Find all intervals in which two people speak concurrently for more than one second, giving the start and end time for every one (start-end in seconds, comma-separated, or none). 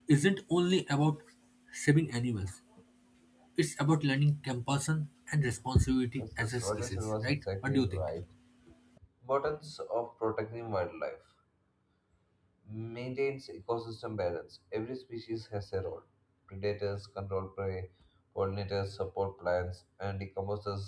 6.2-8.1